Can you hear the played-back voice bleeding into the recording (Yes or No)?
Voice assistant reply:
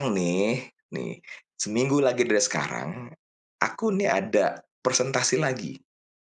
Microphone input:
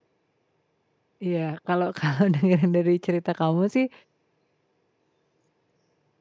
No